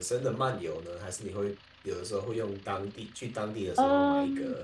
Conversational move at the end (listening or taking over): taking over